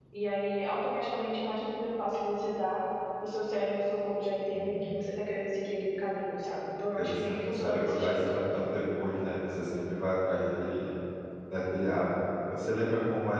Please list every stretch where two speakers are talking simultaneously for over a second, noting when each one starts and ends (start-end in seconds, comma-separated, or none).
7.0-8.2